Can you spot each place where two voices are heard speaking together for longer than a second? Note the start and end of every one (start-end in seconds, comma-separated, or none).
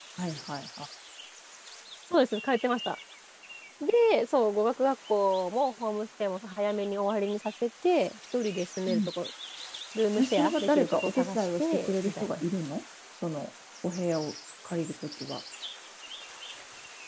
10.2-12.4